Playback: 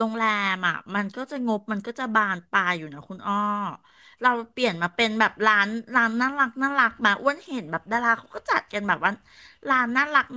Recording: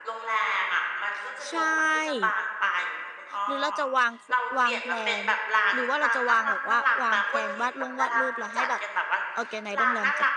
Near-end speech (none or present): present